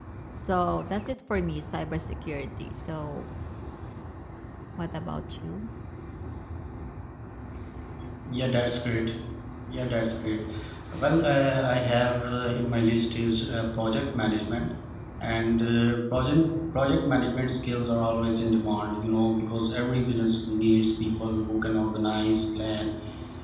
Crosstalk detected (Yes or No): No